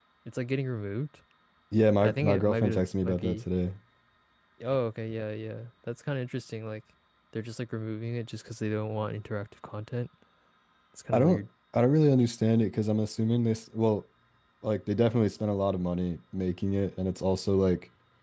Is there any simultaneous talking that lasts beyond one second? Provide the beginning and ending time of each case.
2.0-3.4

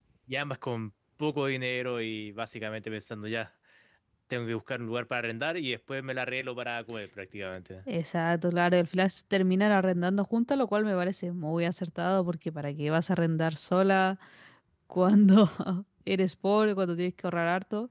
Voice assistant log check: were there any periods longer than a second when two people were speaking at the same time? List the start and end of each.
none

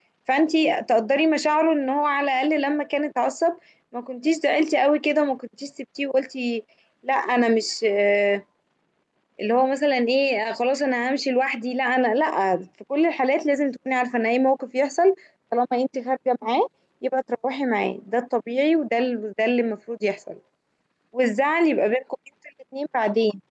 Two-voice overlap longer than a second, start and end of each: none

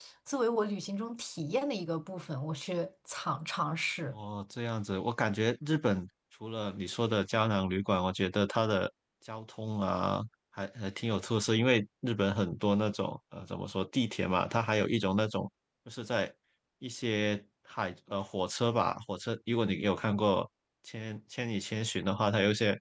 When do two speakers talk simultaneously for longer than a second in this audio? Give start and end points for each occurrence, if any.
none

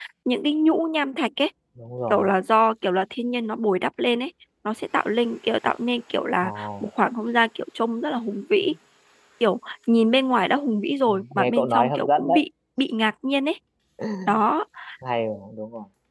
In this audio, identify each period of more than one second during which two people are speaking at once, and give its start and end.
11.1-12.4

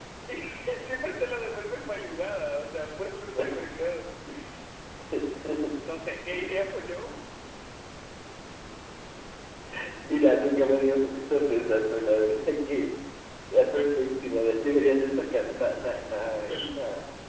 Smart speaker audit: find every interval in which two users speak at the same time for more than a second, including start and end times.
none

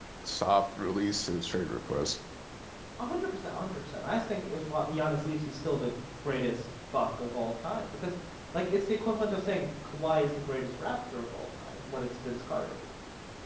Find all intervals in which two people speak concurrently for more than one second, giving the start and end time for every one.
none

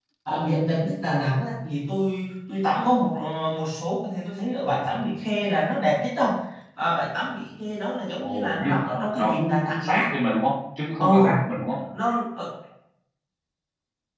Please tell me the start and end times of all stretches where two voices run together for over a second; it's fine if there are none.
8.2-10.1

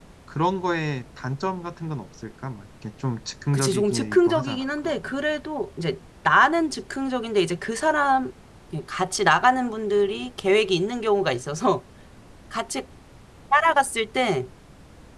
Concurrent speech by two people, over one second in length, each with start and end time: 3.5-5.1

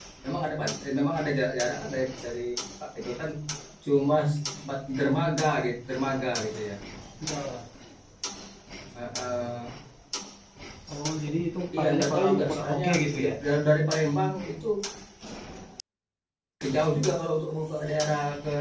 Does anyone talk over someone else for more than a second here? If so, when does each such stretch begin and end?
11.8-13.3

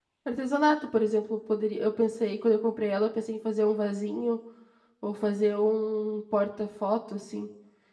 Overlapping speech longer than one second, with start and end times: none

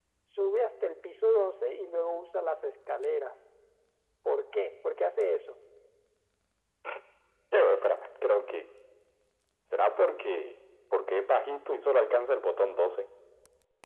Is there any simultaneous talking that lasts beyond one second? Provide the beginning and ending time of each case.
none

